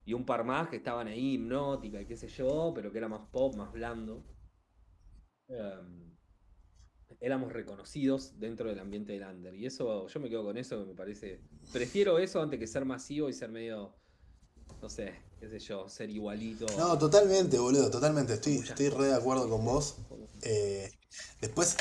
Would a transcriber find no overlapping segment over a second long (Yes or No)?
No